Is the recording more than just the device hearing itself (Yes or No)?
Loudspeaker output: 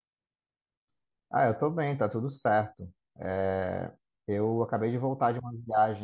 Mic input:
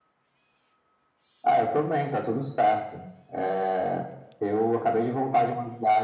No